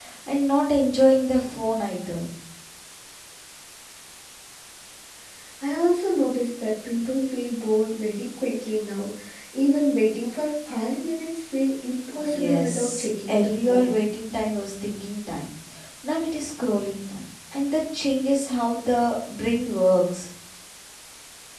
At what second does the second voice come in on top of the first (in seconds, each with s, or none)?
12.2 s